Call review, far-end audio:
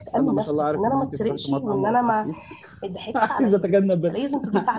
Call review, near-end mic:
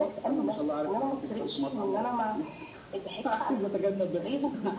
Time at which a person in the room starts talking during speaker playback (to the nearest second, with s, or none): none